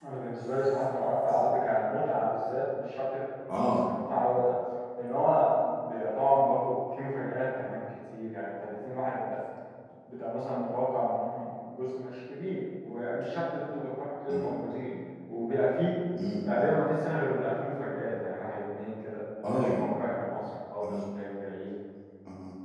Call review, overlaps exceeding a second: none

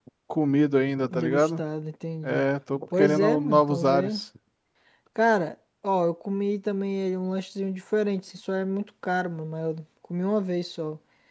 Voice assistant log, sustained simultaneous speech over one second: present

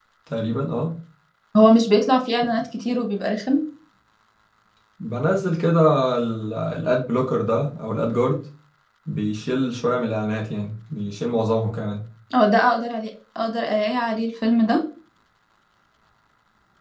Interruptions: none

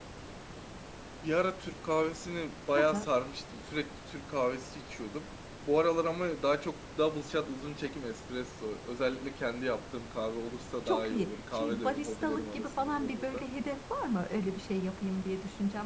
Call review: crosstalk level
present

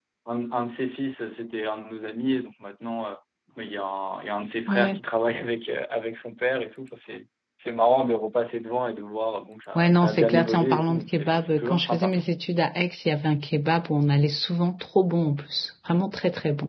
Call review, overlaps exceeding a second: present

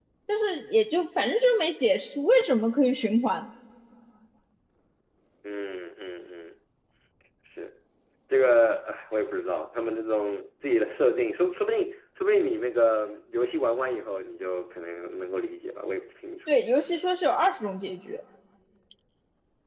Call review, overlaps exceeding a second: none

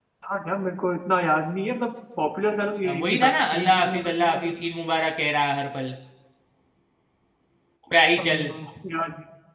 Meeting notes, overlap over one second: present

